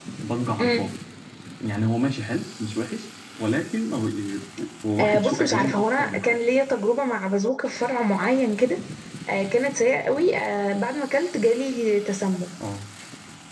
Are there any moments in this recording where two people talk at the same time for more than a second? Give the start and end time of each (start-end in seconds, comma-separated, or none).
5.0-6.4